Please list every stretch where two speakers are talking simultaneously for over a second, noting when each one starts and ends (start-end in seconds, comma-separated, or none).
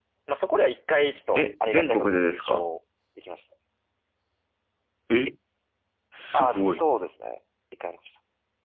1.4-2.7